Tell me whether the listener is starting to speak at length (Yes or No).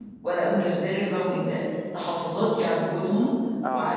No